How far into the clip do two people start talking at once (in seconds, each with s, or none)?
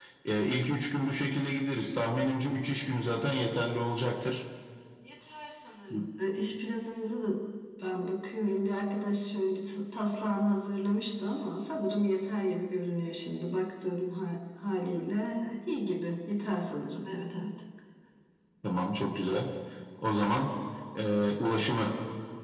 none